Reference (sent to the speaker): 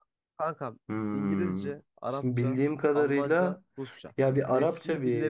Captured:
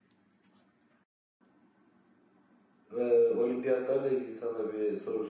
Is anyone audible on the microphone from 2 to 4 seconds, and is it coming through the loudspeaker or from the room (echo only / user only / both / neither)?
user only